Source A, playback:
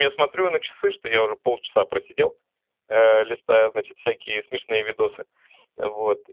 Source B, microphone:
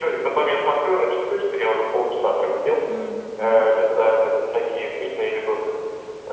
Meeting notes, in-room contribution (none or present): present